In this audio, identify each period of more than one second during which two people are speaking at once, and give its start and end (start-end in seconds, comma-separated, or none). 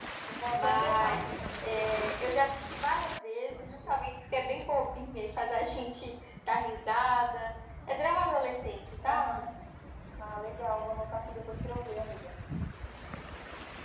0.5-2.1